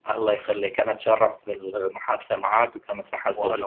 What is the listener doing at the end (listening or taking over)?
listening